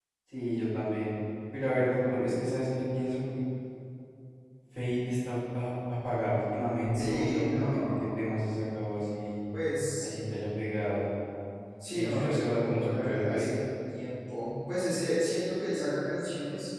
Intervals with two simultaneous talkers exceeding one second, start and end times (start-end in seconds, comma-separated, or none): 6.9-8.2, 11.9-13.5